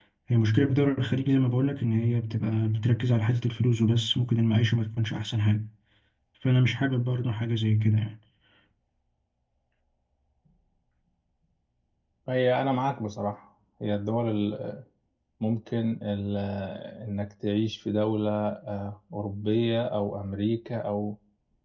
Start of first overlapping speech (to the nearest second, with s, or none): none